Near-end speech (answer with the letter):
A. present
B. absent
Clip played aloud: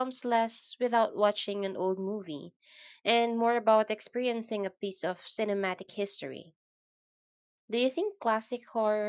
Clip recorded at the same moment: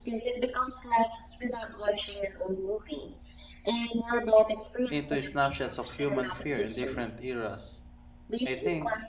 A